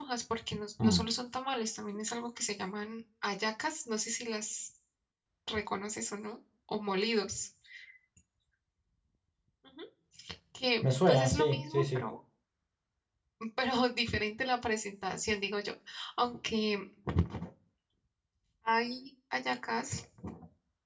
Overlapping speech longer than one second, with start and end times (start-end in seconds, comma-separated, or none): 10.8-12.1